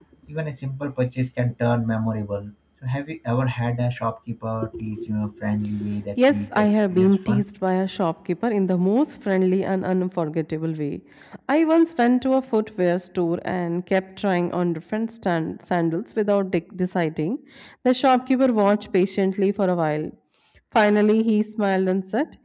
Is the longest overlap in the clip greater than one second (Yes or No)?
Yes